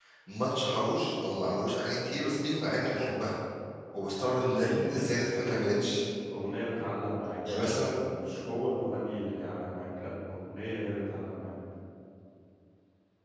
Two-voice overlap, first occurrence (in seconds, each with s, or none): 4.5 s